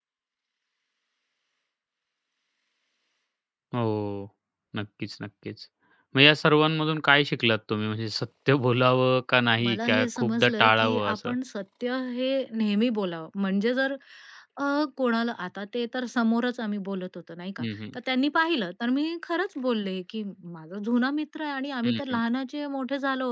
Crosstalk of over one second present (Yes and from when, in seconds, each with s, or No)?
Yes, from 9.6 s